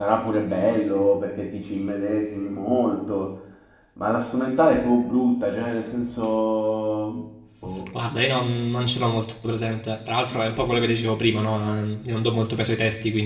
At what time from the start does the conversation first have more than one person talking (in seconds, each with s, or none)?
none